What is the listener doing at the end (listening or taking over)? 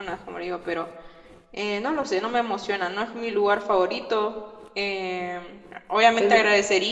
listening